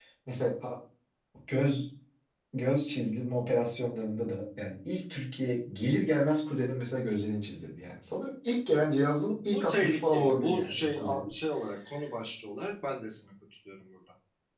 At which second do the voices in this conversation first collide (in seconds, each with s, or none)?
9.3 s